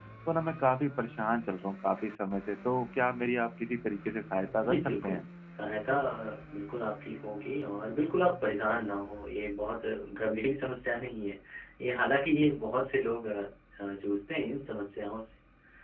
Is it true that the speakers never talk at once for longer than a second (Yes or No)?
Yes